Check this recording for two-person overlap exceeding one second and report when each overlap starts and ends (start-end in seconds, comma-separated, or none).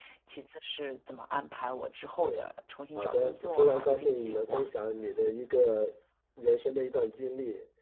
3.0-4.7